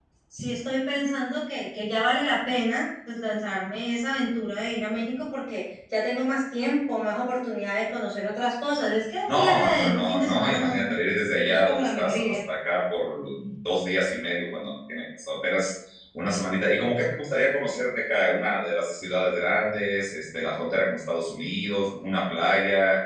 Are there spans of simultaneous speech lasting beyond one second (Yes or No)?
Yes